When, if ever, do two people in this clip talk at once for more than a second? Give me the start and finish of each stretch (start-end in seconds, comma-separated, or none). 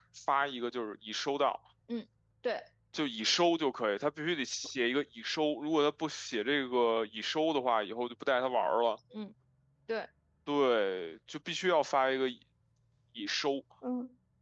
none